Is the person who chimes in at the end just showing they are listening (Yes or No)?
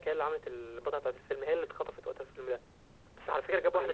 No